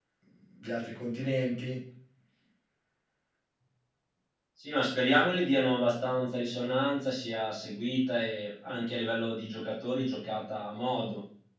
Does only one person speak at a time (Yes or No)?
Yes